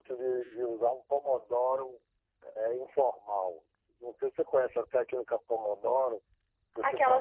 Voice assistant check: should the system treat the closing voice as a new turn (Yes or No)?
Yes